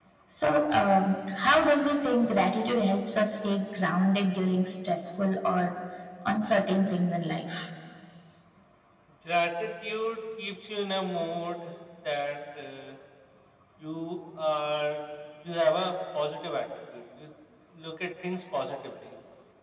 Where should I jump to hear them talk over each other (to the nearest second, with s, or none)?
none